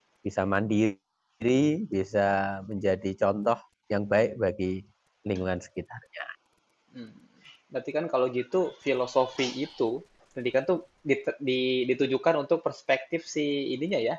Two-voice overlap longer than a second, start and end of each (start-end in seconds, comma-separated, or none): none